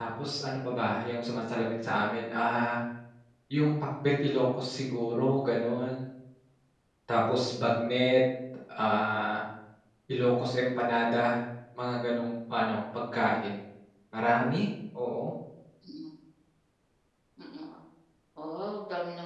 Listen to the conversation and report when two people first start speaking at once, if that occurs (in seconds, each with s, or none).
none